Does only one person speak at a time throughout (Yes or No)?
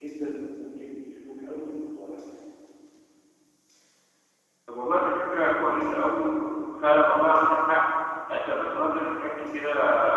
Yes